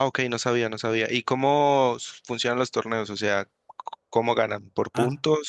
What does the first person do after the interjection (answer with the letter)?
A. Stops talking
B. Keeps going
A